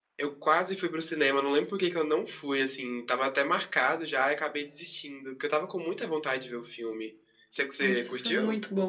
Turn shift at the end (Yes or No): Yes